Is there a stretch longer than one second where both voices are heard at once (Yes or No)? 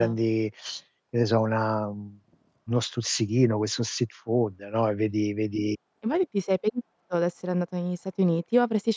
No